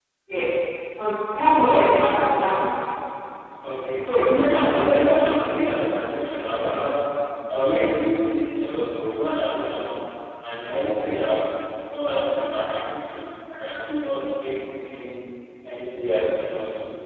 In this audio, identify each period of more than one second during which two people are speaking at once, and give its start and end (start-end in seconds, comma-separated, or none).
4.0-5.3